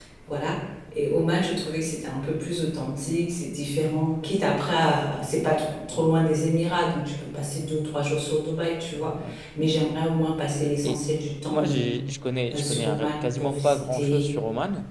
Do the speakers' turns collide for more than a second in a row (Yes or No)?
Yes